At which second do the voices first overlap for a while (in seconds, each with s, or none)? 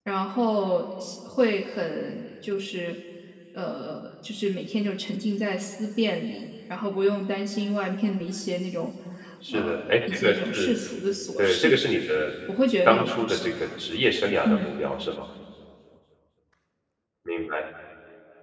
9.5 s